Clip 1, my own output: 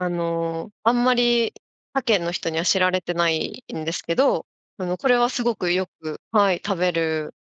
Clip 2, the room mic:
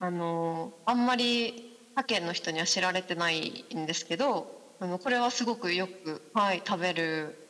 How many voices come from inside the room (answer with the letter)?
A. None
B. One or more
A